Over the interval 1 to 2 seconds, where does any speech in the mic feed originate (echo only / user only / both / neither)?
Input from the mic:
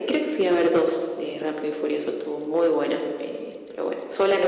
echo only